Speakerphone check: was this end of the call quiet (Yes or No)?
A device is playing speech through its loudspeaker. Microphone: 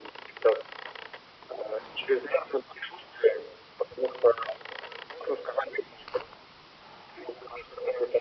Yes